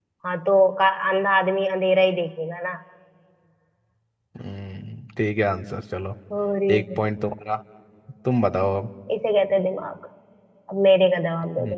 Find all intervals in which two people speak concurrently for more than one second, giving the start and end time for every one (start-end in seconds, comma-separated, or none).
none